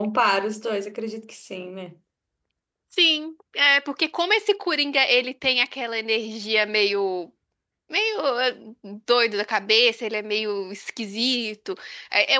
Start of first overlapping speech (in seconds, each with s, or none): none